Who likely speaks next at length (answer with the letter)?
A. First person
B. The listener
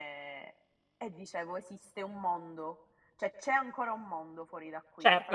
B